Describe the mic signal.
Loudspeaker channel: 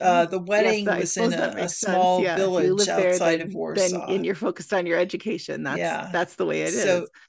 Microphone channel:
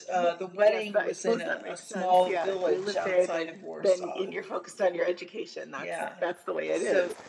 echo only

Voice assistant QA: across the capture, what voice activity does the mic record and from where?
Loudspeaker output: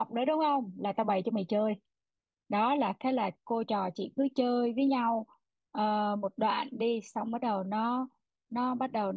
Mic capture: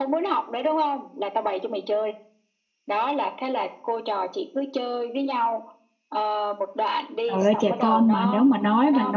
both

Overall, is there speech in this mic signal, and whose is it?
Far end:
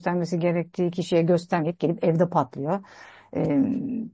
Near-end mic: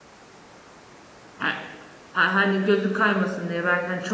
user only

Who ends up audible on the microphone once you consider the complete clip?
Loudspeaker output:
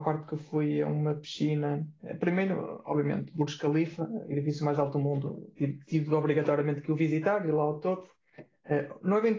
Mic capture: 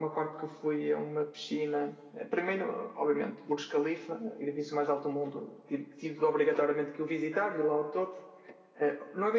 echo only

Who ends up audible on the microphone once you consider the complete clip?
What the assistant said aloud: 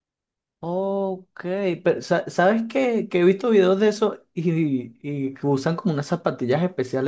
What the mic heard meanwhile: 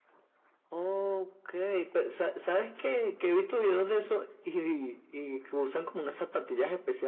echo only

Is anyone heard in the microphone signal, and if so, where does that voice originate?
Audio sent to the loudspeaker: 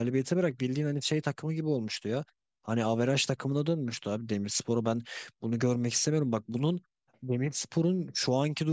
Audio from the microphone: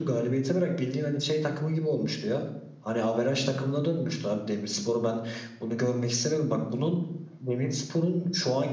echo only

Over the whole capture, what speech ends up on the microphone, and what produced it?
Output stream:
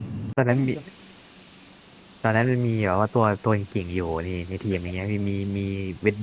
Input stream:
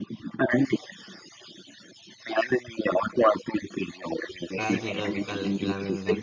both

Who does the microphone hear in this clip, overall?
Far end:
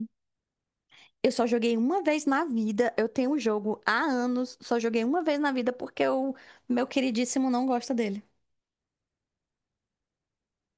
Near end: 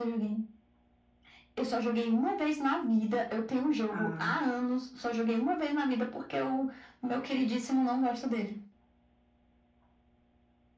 both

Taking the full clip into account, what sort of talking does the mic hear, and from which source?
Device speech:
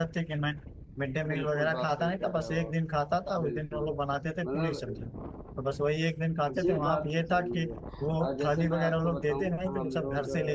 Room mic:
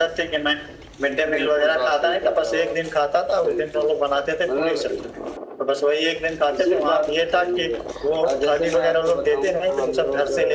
echo only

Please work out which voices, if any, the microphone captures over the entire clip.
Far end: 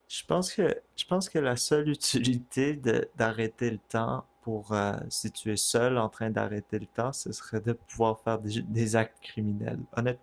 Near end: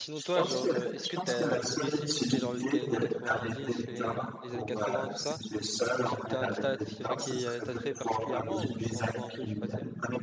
both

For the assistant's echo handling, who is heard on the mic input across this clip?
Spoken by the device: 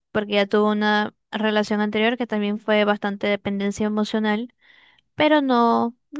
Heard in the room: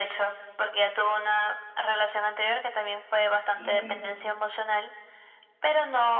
both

